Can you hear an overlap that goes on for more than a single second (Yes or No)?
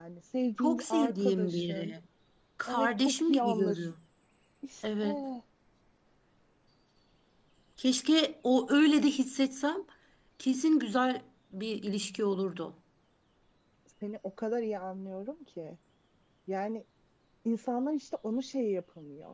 Yes